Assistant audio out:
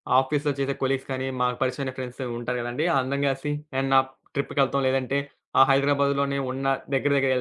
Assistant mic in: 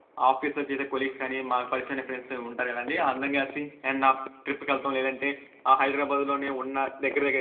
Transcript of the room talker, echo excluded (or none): none